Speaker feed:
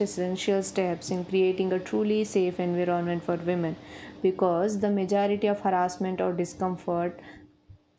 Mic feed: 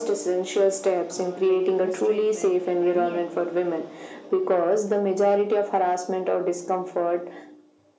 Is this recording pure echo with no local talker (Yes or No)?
No